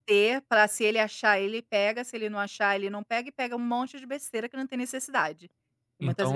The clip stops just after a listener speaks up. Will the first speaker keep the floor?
No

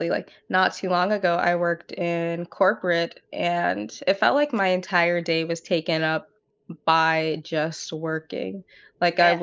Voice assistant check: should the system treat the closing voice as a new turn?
No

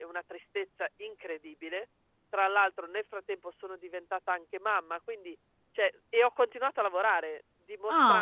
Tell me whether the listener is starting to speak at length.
No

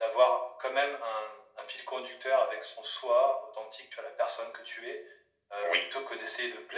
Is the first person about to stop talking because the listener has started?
No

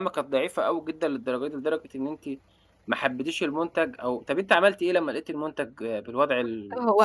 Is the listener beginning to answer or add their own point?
Yes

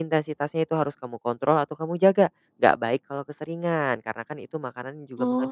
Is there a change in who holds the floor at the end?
No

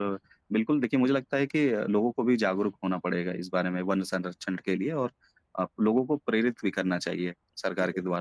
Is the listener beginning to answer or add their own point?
Yes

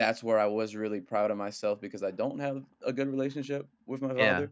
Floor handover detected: No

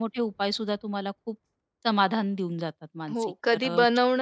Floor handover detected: Yes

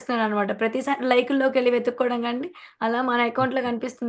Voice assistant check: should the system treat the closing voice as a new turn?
No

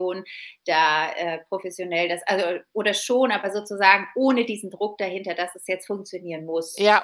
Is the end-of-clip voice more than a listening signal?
Yes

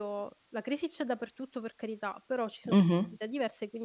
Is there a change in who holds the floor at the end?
No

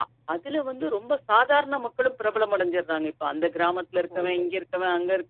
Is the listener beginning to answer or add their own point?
No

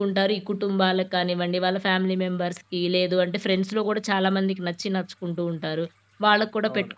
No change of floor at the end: Yes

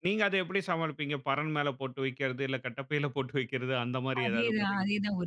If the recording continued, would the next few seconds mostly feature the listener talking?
Yes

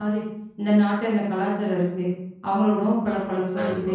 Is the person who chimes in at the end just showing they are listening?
Yes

